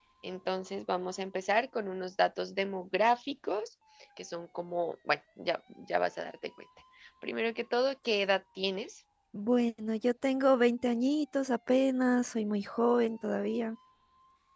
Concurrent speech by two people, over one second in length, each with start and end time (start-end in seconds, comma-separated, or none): none